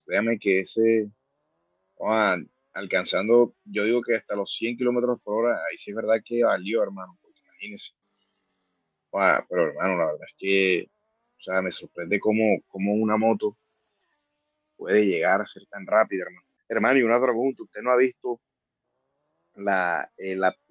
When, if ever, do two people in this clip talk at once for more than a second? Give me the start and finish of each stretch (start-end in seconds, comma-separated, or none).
none